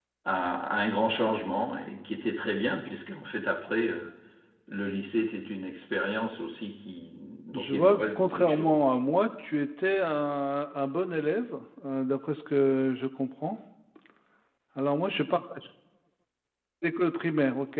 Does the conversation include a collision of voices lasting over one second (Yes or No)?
Yes